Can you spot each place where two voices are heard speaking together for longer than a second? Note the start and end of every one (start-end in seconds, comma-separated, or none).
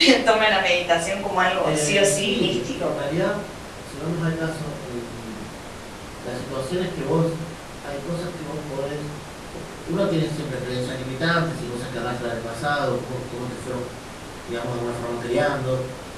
1.6-2.9